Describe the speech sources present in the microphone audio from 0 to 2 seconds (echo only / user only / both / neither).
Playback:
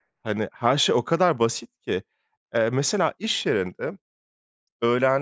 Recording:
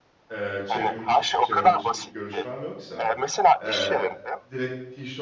both